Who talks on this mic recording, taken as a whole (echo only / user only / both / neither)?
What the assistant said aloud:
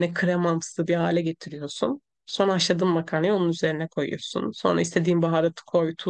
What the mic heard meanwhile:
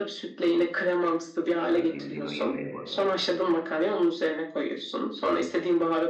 both